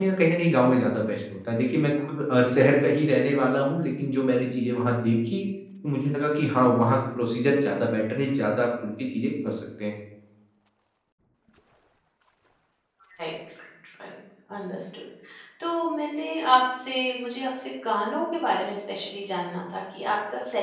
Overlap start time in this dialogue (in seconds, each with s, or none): none